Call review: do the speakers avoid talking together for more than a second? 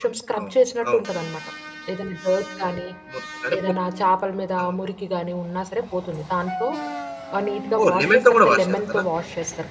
No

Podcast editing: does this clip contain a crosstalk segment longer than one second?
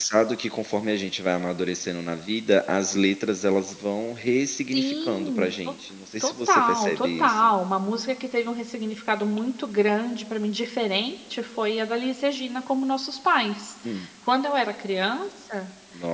Yes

